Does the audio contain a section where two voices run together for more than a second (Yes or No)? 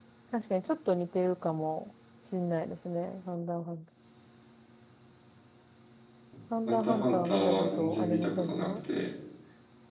Yes